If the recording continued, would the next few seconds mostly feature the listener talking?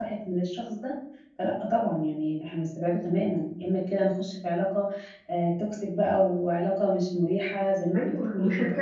Yes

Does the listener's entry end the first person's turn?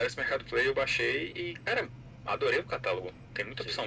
Yes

